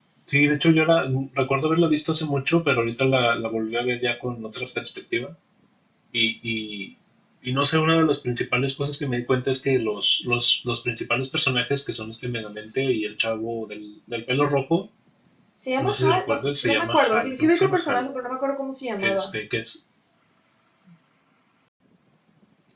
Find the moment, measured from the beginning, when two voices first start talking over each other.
15.8 s

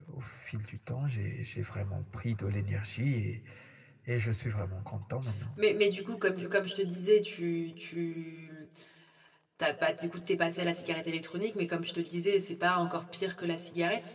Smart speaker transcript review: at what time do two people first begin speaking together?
none

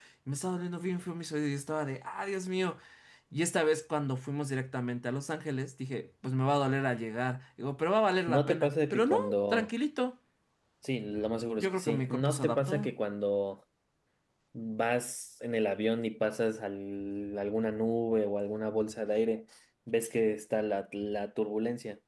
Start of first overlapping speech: 8.3 s

